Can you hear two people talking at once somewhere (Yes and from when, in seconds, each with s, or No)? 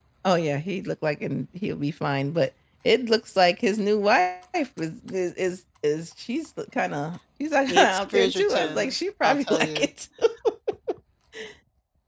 Yes, from 7.7 s